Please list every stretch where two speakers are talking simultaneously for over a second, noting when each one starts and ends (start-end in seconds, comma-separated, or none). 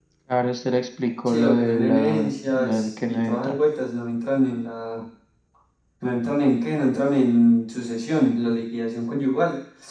1.2-3.6